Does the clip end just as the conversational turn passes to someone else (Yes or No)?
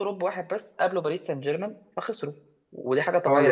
No